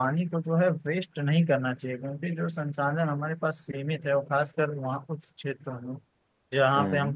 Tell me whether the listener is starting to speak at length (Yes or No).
No